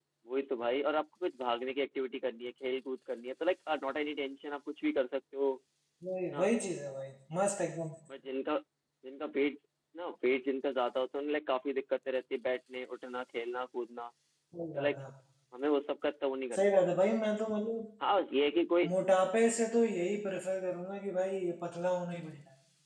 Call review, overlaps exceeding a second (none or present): none